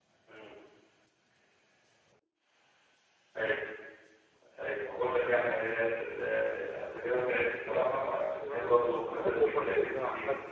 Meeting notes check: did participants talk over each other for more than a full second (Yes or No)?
Yes